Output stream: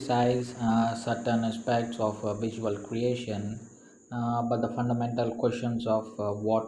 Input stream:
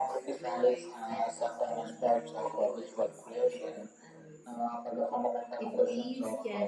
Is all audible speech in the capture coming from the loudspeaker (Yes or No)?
No